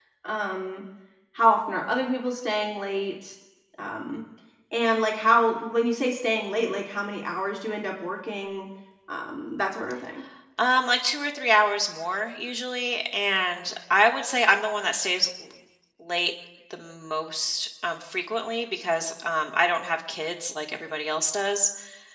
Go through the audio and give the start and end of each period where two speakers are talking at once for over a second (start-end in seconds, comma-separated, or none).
none